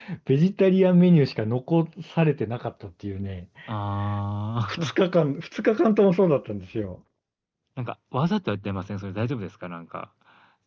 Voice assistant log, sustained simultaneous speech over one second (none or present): none